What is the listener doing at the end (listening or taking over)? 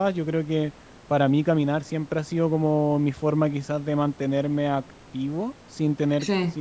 listening